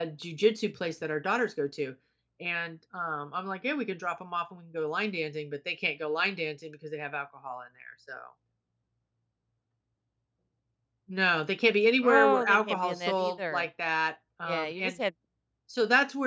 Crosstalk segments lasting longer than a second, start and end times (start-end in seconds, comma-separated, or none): 12.0-13.7